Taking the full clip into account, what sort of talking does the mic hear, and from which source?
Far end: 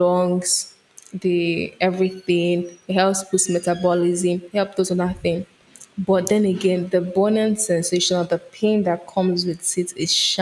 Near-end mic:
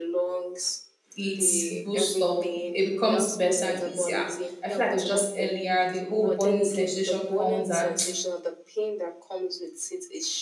both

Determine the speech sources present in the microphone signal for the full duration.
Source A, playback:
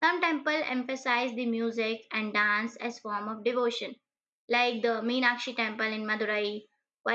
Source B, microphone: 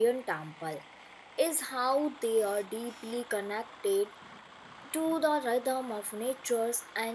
user only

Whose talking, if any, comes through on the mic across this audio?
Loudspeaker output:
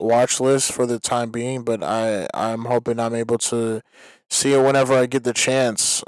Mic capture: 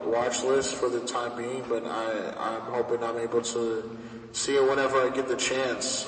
echo only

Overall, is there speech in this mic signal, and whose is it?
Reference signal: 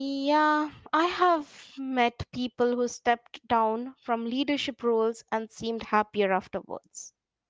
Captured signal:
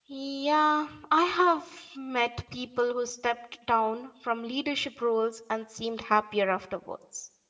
echo only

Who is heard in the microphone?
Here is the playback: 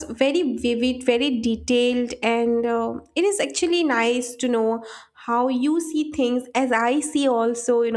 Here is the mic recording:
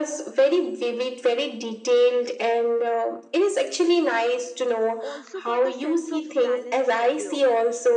both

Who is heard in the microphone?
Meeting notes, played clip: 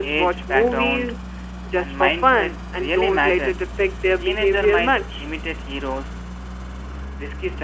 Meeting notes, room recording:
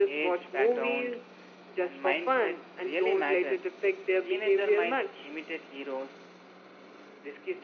echo only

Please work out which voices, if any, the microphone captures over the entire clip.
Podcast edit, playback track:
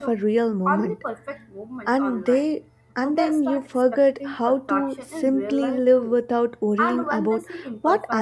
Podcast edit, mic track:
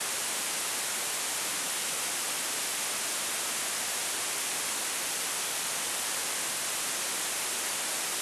neither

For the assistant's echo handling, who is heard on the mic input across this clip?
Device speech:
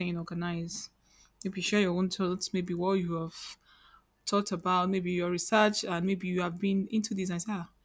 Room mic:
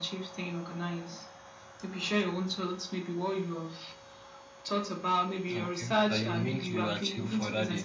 both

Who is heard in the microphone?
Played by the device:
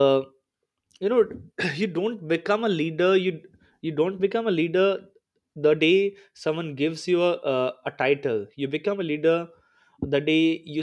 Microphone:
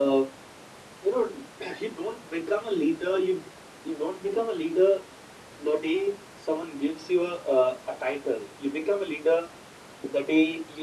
echo only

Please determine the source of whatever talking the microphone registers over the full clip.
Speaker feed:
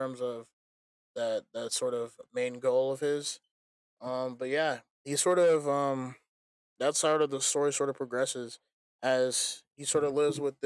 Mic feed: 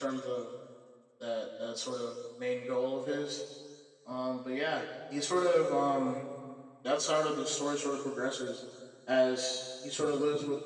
echo only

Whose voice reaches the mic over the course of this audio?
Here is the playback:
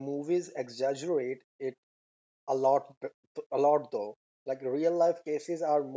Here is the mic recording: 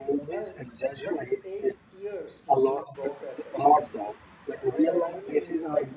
both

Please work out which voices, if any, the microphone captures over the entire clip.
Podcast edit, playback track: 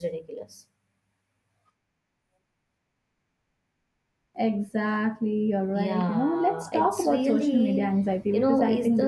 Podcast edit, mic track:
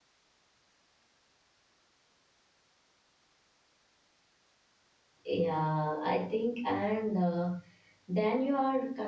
user only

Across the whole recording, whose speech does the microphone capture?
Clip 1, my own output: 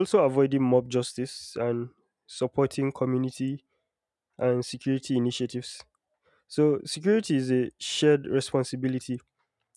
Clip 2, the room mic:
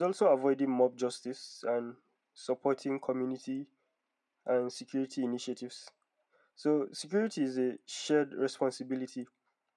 echo only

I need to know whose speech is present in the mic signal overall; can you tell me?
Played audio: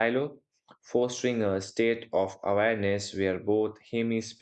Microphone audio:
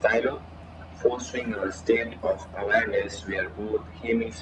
echo only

